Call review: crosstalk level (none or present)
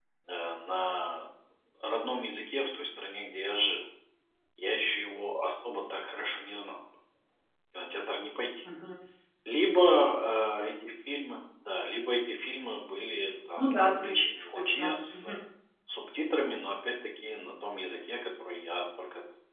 present